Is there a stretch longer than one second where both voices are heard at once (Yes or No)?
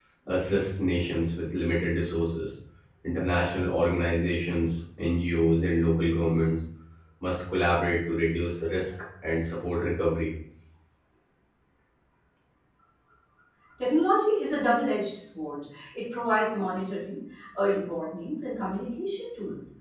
No